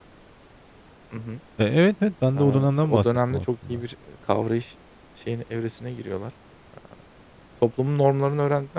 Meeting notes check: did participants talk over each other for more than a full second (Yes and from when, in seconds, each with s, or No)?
Yes, from 2.4 s